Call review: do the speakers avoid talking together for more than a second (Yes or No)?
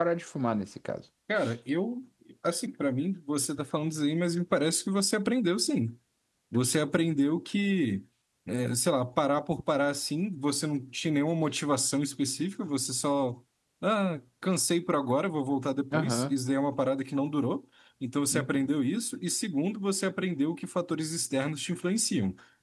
Yes